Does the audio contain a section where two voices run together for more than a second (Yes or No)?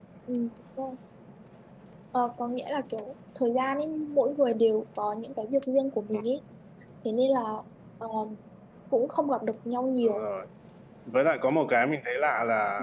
No